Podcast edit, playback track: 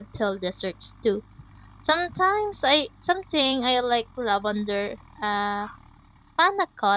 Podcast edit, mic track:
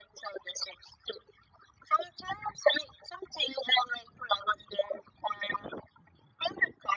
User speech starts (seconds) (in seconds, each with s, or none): none